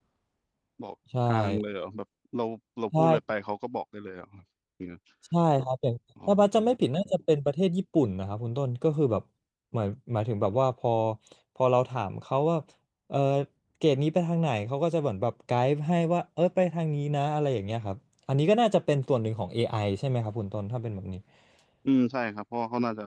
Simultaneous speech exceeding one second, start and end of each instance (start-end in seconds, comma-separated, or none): none